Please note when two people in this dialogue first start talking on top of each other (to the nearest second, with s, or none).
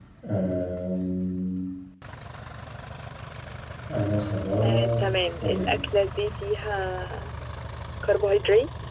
5 s